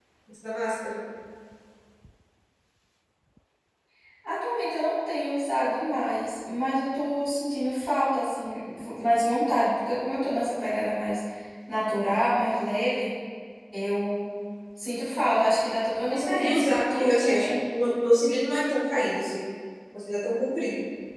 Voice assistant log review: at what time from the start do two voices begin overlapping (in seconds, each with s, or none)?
16.1 s